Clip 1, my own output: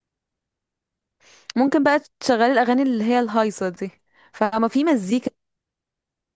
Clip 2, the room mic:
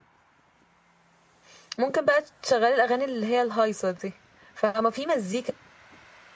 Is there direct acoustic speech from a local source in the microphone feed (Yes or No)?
No